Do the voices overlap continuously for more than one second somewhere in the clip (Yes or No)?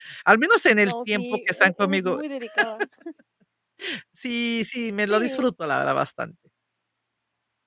Yes